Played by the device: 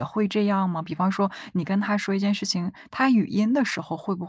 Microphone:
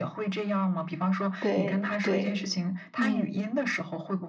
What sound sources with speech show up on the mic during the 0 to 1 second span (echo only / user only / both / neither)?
echo only